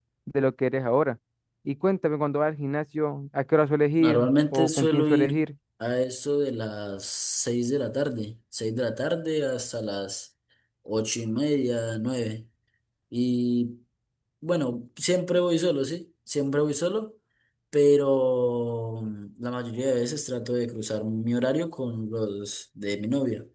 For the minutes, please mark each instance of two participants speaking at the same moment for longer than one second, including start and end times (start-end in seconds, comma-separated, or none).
4.0-5.4